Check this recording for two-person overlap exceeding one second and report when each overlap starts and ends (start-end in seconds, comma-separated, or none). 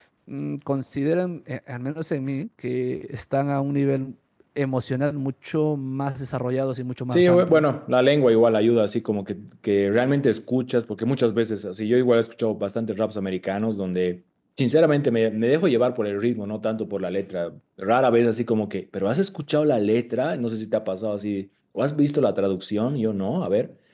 none